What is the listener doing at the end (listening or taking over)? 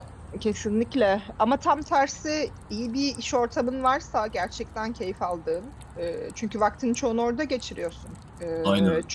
listening